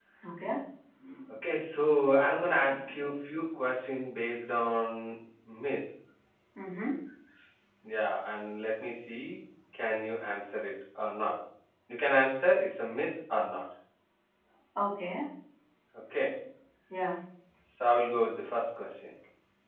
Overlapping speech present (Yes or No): No